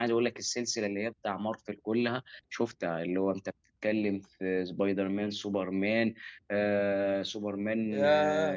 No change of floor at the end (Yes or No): No